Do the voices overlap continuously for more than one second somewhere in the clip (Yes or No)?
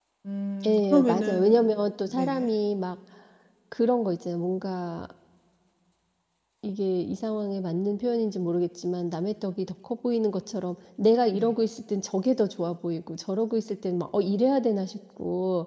Yes